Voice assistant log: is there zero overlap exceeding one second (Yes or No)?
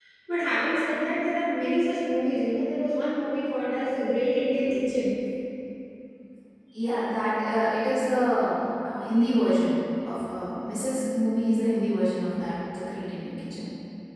Yes